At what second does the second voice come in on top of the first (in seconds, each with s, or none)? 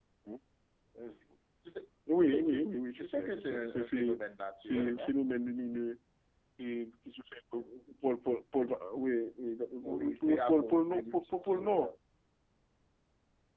2.2 s